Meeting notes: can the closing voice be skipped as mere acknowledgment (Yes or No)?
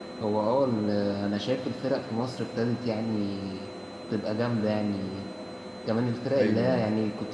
Yes